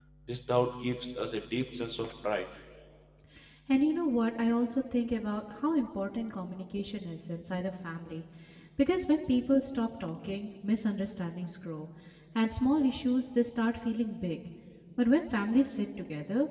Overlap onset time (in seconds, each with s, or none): none